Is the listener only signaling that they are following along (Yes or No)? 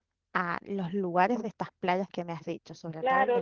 No